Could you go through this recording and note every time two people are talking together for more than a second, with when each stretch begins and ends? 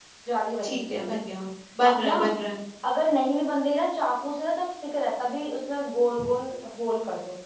none

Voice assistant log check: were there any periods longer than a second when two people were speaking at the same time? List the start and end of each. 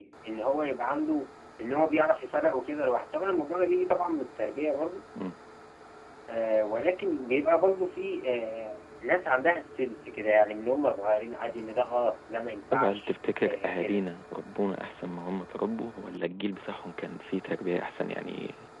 12.7-14.0

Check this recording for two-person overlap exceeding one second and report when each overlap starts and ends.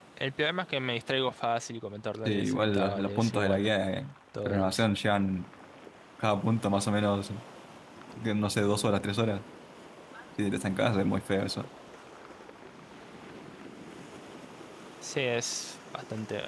2.2-3.7

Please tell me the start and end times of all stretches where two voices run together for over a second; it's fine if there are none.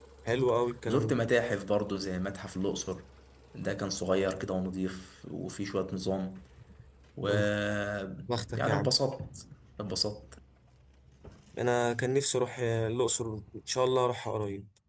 none

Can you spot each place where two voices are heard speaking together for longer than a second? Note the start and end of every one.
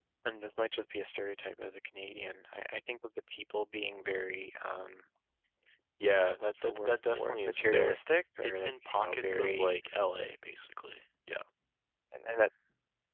6.1-8.0, 8.4-9.7

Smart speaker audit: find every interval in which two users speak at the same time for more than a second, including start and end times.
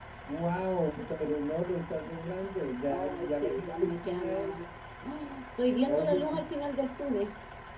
2.9-4.7

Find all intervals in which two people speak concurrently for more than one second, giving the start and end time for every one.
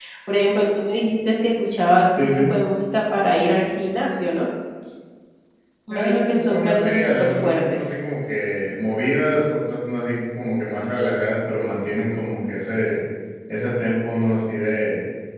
5.9-7.9

